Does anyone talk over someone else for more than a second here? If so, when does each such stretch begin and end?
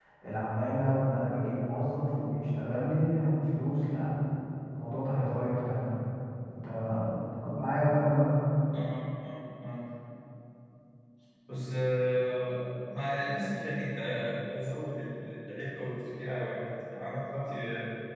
none

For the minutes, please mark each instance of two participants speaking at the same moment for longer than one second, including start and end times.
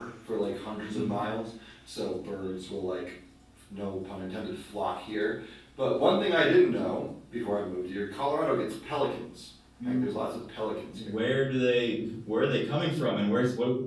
none

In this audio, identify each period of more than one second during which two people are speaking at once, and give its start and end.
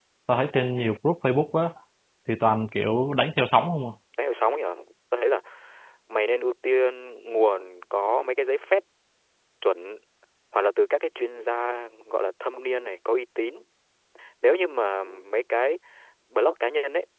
none

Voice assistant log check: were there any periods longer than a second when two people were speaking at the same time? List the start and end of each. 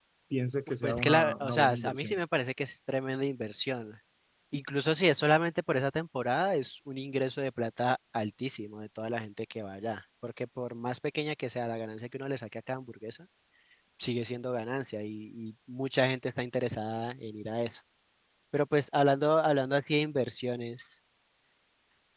0.8-2.2

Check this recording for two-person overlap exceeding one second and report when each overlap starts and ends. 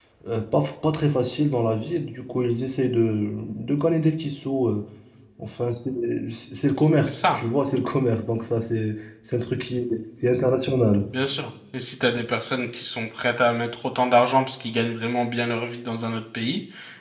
none

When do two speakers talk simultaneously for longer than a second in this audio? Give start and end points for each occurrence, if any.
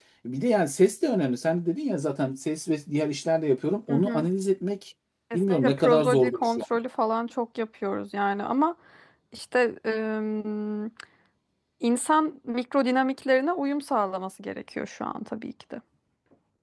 5.3-6.6

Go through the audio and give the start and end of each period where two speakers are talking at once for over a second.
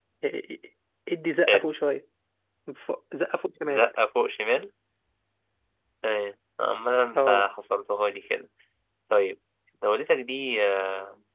none

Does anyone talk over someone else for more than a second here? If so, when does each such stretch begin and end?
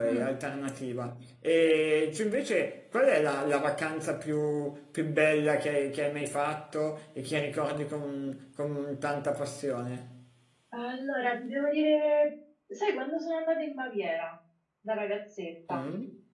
none

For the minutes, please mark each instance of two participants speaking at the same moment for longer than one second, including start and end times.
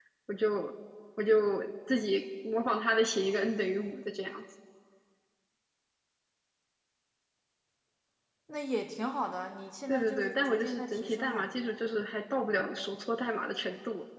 9.9-11.5

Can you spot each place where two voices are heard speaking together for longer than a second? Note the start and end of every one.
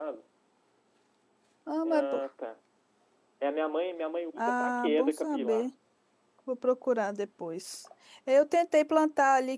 4.4-5.7

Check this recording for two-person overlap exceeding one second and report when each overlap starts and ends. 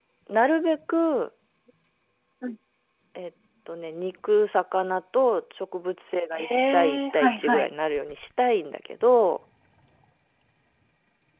6.4-7.7

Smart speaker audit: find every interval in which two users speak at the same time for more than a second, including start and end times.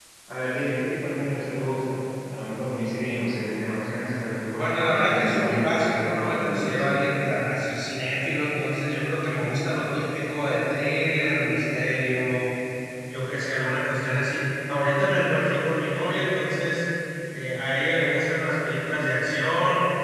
4.5-6.8

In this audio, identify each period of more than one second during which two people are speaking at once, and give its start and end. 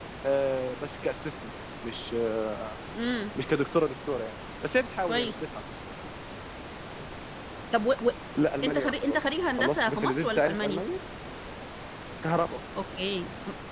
9.6-10.8

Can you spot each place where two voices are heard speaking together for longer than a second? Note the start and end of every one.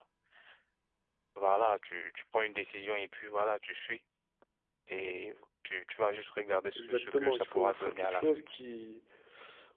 6.8-8.4

